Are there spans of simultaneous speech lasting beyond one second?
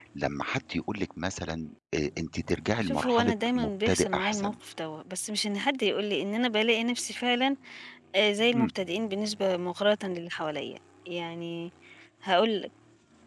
Yes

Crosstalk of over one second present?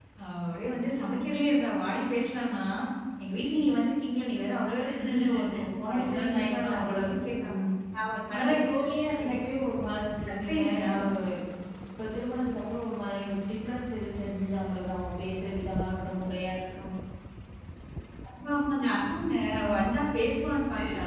Yes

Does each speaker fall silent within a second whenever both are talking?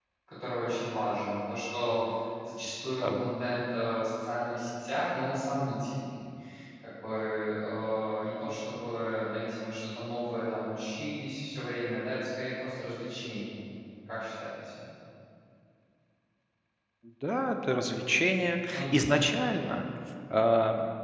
Yes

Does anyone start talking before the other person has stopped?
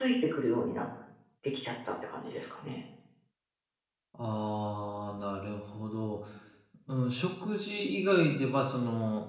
No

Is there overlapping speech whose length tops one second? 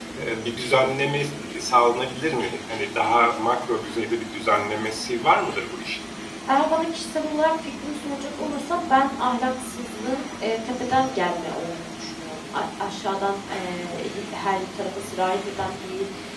No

